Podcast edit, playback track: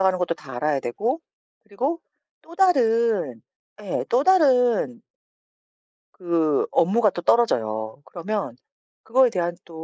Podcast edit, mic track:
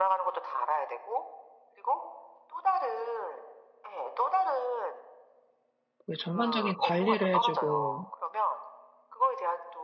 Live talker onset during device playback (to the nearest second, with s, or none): 6 s